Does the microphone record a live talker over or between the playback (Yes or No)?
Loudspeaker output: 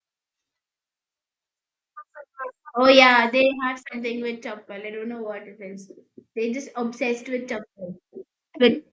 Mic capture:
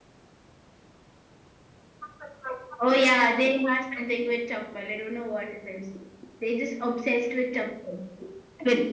No